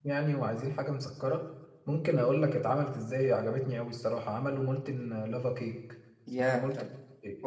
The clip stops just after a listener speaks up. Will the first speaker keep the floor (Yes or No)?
No